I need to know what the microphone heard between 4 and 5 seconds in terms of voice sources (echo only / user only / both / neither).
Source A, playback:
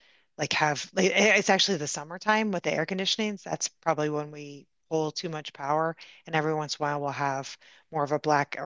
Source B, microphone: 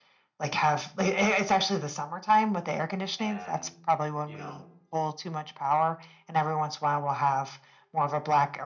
both